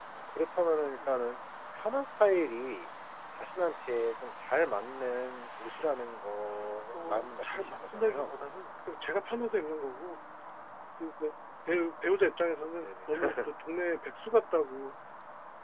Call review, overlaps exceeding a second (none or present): present